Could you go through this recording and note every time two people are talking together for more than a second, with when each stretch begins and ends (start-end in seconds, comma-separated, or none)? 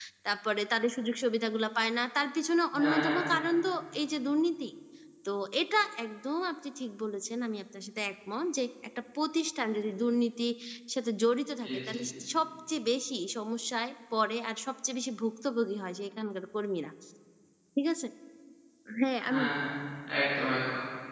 none